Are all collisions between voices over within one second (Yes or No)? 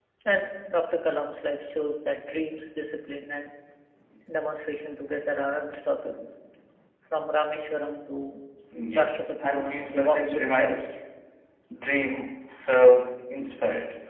No